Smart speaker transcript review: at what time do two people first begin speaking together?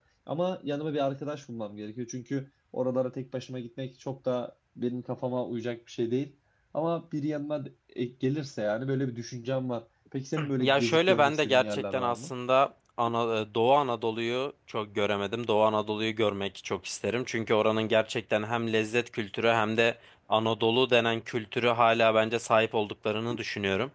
10.4 s

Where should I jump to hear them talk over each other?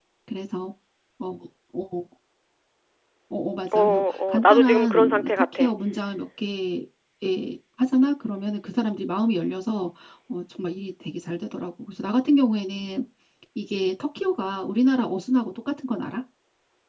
3.7 s

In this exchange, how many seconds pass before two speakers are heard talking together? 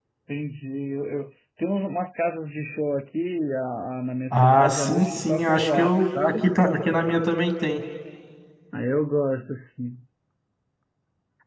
4.3 s

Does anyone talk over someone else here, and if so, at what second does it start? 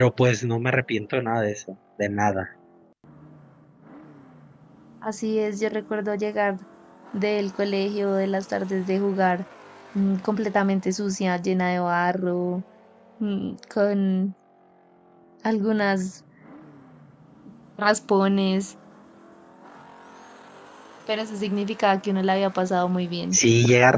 none

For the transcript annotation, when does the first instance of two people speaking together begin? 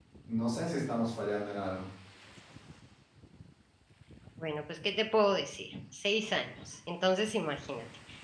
none

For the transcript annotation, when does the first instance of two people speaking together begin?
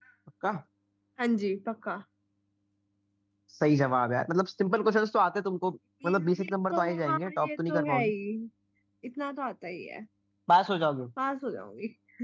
6.0 s

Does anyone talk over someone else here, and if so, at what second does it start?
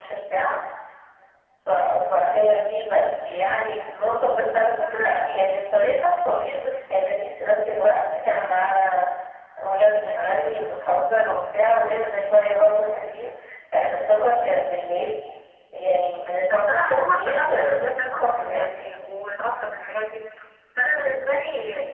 16.5 s

